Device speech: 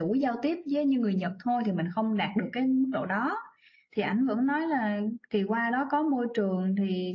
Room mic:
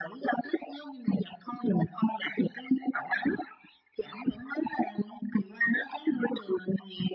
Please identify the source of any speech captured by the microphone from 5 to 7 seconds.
echo only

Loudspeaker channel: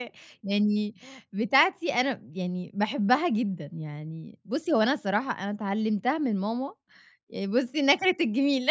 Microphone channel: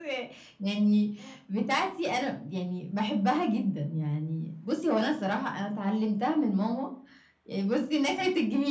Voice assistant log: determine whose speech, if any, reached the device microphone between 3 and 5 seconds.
echo only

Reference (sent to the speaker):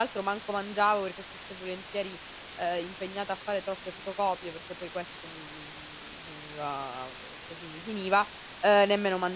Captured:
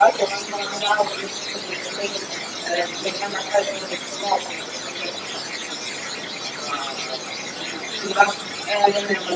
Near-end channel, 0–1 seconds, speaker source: echo only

